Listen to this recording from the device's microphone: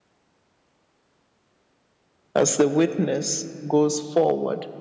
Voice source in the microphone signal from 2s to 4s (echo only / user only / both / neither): user only